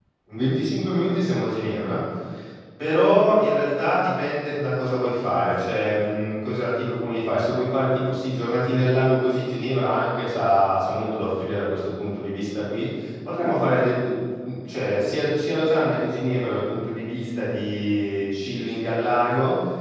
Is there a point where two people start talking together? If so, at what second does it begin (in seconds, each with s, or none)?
none